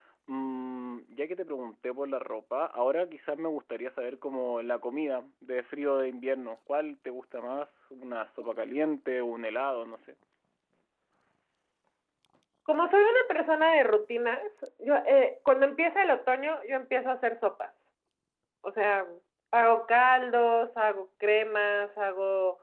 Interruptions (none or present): none